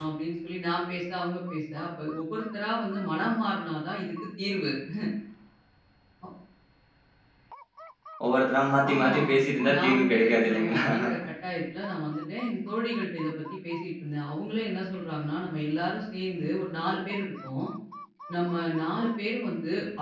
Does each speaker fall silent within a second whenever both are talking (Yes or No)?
No